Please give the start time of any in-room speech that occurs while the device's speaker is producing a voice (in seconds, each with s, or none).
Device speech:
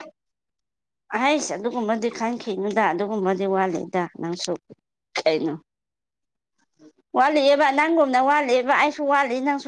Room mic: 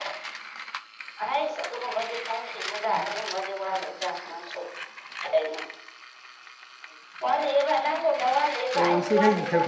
8.7 s